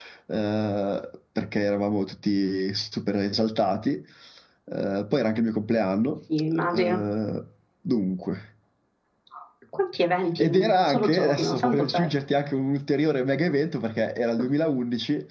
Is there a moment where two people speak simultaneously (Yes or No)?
Yes